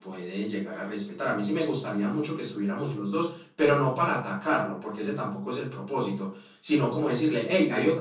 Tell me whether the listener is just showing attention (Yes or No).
Yes